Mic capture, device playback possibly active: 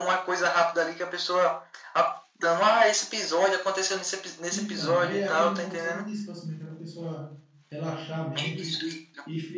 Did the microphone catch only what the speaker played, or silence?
No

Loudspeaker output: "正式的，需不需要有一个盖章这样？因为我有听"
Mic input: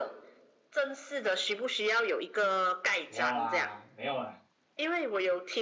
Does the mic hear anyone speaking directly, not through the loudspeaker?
Yes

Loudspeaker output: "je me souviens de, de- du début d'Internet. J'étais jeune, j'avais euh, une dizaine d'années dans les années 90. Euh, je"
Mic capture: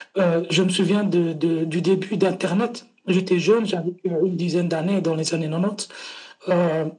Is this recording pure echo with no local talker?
Yes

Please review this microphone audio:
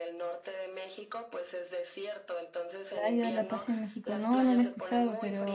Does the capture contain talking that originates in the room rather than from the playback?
Yes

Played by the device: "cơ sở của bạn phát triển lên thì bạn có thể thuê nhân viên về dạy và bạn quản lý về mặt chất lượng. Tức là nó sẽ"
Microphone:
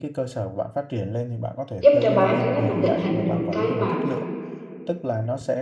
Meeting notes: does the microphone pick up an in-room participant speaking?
Yes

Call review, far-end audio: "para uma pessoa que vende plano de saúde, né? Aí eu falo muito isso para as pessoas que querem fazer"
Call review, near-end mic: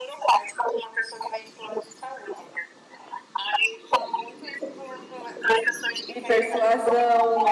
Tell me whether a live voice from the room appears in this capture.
Yes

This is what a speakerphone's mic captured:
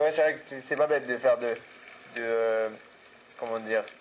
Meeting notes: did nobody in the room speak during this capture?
Yes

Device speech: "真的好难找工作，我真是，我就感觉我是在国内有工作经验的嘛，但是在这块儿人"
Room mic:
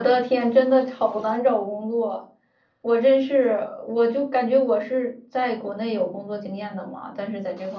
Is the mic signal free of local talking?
Yes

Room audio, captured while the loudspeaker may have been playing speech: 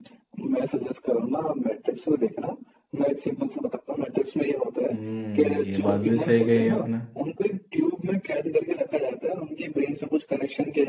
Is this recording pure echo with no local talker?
No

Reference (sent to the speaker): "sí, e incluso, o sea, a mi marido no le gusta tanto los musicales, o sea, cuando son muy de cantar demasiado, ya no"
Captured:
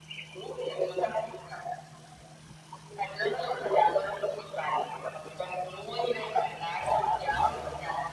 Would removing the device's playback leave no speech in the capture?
Yes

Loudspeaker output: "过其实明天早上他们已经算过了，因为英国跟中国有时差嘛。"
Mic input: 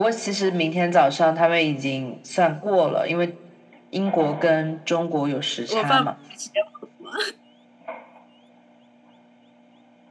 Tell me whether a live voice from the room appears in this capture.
Yes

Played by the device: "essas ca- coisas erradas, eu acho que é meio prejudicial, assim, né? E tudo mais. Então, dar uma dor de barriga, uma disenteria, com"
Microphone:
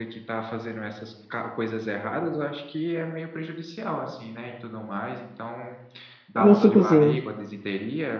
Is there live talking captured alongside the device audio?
Yes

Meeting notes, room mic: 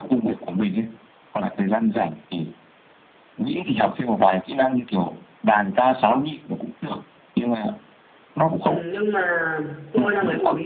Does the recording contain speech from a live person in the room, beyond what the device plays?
Yes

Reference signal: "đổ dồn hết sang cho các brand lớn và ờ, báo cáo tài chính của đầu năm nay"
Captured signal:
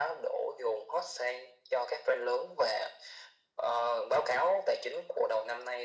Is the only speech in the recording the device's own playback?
Yes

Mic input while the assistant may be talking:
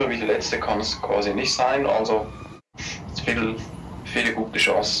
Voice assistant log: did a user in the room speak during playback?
No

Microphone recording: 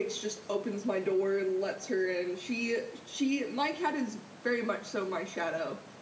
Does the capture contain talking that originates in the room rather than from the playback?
No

